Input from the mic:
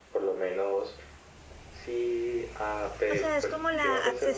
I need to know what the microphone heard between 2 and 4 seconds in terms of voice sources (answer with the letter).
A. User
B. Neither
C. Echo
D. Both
D